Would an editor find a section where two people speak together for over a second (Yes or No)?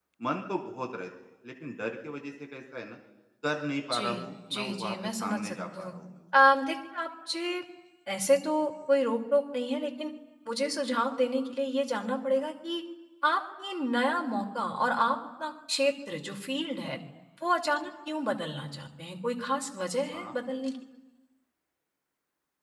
Yes